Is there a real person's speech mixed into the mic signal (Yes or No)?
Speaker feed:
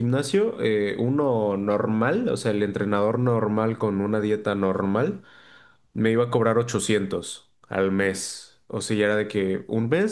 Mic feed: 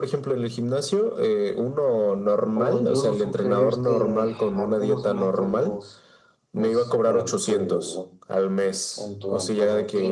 Yes